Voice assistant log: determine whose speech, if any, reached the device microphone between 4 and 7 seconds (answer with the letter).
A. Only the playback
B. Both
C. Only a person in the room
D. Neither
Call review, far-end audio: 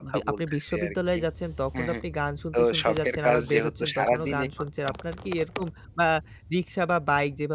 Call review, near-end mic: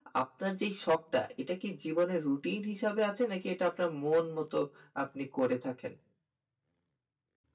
C